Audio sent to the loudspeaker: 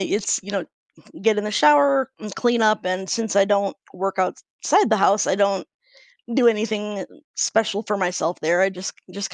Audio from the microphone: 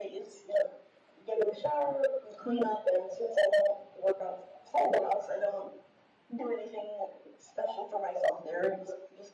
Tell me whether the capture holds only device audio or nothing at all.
Yes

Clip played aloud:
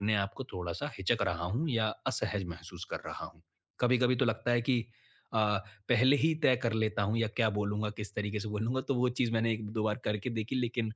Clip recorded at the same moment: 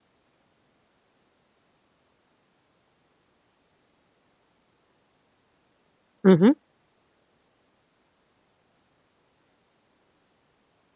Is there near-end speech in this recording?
Yes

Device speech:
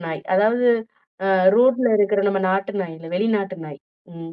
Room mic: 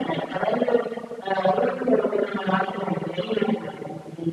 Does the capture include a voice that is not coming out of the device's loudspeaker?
Yes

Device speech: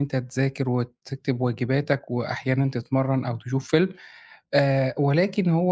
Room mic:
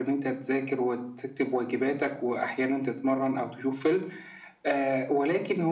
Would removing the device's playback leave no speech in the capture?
Yes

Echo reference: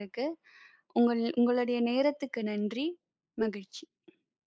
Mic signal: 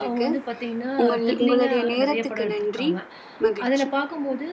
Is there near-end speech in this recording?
Yes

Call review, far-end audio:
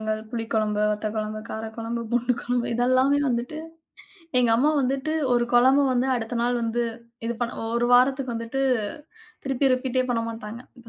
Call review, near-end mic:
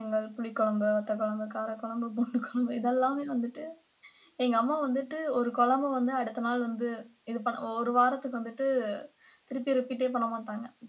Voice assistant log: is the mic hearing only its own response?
Yes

